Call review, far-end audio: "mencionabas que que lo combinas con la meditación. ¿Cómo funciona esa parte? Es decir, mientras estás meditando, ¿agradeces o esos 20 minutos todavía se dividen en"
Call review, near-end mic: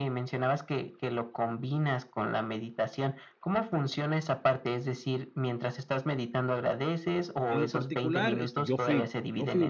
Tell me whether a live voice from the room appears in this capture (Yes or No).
Yes